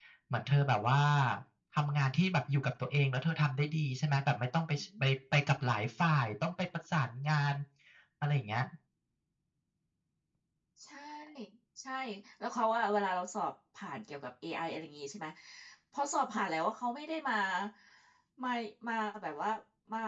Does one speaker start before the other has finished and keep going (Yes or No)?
No